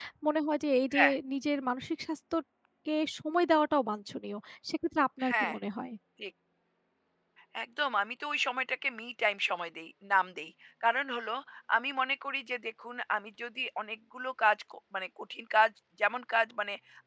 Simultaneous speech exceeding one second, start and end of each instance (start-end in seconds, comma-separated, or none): none